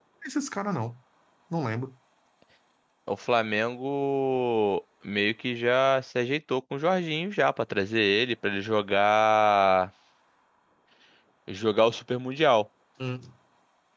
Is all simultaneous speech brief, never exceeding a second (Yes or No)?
Yes